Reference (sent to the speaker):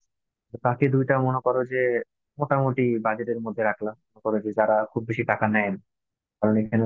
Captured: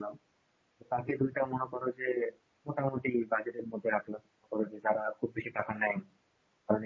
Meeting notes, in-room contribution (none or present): none